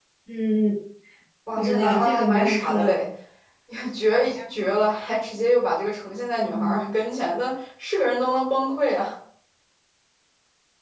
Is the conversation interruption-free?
No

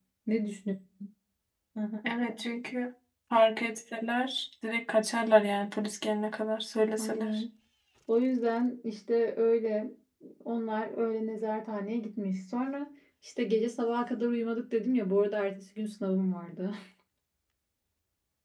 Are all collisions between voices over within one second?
Yes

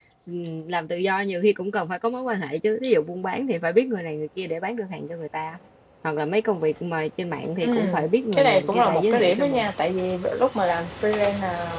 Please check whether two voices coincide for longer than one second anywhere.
Yes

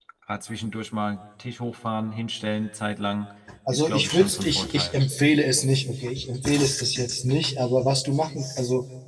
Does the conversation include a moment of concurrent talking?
Yes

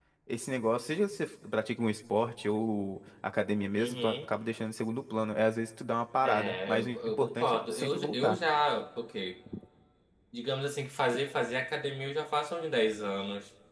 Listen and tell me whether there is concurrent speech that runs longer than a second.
Yes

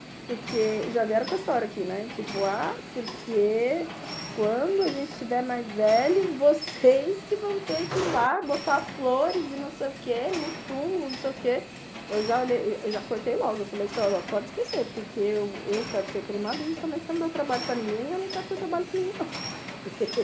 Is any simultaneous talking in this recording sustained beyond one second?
No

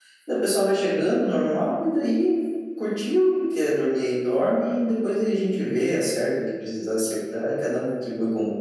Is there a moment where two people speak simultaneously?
No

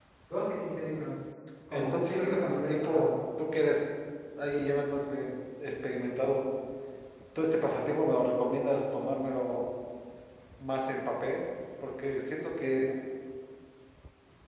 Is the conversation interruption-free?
No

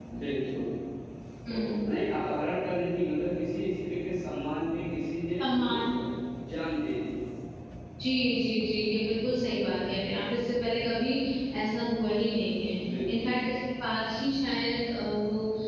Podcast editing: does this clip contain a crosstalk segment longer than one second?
No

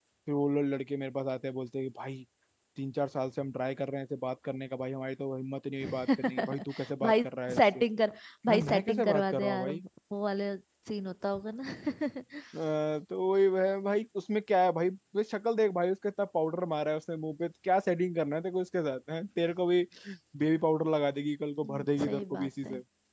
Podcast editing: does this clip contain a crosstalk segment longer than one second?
Yes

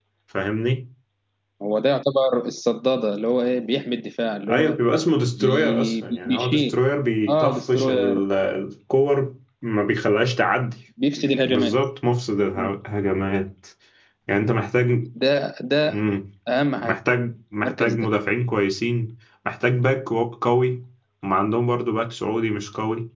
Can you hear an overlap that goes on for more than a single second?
Yes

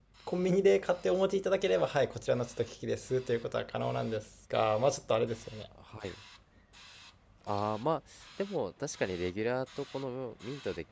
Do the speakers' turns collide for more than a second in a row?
No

